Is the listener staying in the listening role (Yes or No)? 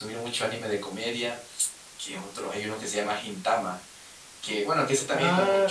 No